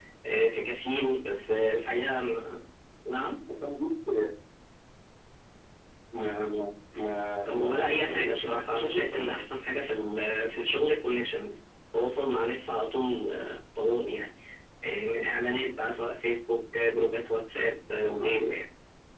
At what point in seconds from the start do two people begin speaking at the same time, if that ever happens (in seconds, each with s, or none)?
7.5 s